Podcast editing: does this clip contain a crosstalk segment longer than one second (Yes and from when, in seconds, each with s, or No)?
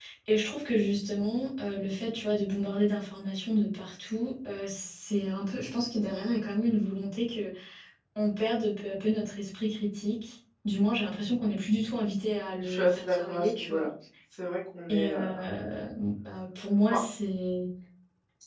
Yes, from 12.6 s